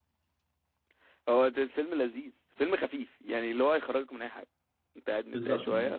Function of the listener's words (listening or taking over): taking over